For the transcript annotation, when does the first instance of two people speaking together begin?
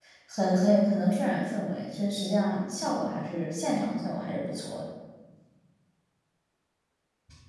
none

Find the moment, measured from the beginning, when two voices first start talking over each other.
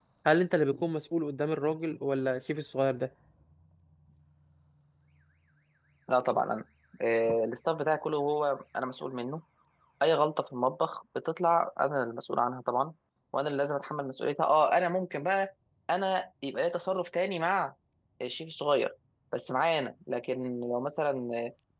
none

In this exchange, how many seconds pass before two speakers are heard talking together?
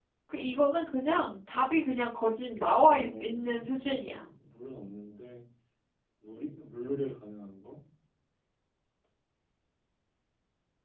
2.9 s

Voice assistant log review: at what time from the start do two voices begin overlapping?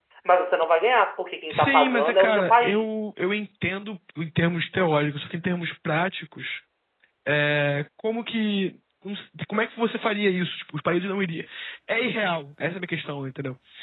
1.5 s

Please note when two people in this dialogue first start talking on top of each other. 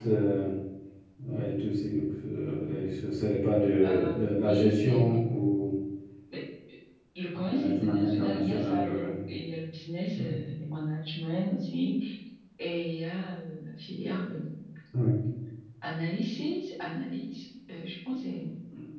3.8 s

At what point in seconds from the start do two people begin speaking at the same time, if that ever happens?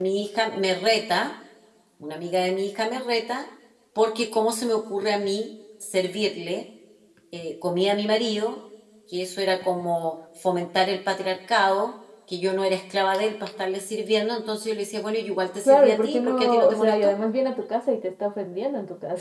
15.6 s

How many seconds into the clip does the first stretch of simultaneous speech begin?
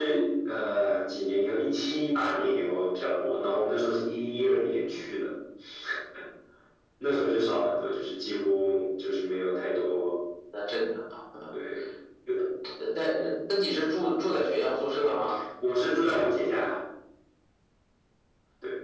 none

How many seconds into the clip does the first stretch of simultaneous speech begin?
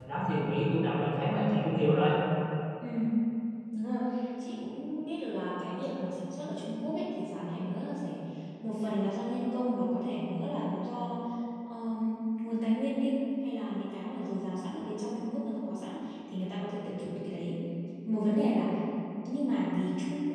none

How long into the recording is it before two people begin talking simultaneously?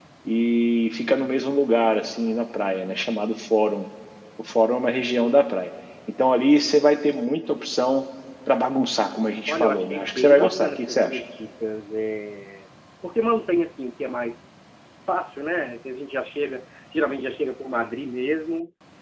9.5 s

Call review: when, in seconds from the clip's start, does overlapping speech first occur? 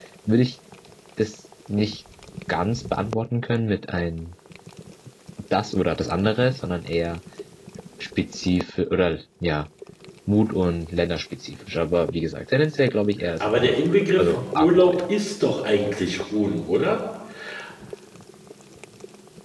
13.4 s

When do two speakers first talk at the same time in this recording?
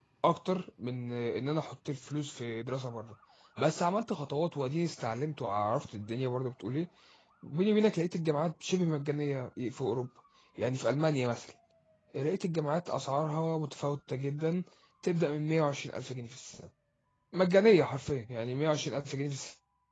none

